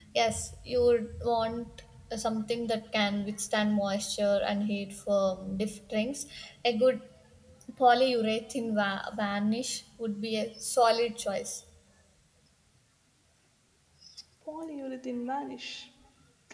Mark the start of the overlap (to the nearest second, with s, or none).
none